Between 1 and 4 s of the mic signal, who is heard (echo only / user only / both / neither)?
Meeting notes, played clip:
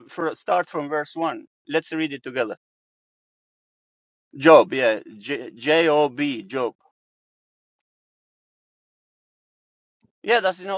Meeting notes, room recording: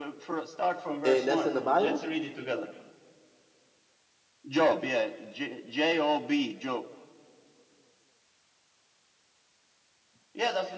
both